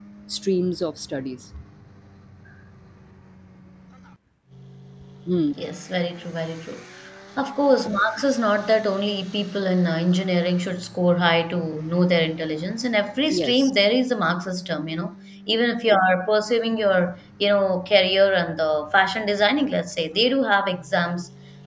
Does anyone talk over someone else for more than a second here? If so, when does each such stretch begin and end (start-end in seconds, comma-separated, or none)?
none